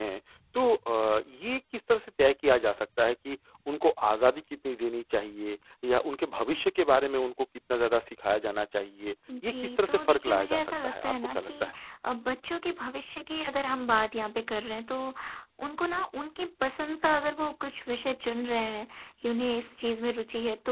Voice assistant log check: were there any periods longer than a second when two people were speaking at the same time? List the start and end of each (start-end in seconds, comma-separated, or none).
9.4-11.7